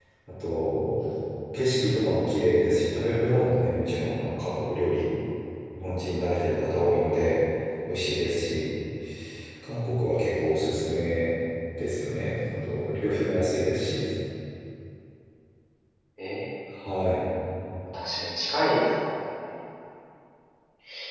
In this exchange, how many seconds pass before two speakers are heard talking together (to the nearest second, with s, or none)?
none